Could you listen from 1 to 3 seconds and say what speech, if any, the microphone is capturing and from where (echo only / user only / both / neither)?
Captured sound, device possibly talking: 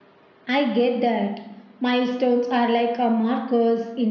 echo only